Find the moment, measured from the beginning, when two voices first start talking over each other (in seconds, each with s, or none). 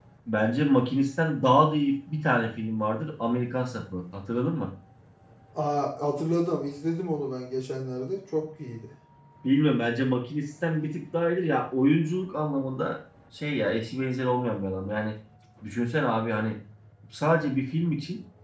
none